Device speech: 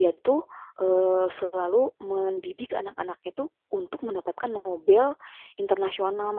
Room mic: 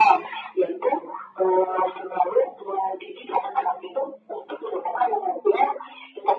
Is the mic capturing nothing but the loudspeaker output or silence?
Yes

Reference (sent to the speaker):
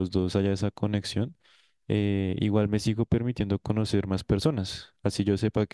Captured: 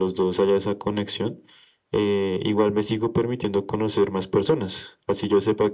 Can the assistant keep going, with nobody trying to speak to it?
Yes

